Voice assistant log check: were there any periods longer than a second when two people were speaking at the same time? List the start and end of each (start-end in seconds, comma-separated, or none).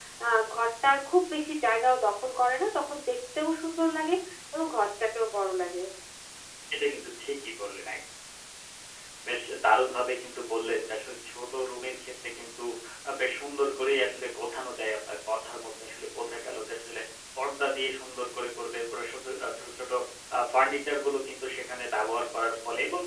none